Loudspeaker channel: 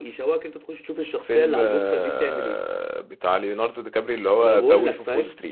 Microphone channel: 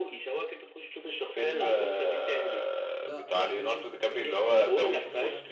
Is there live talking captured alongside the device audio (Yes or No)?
Yes